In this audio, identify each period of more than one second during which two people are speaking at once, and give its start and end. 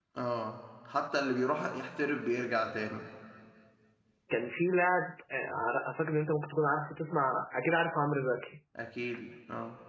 none

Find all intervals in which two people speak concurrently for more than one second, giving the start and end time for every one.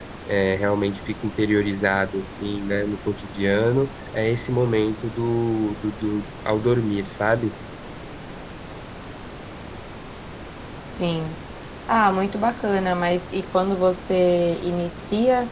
none

